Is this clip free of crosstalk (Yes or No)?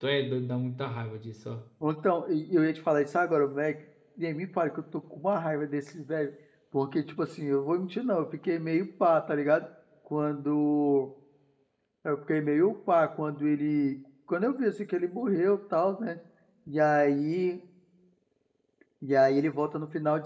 Yes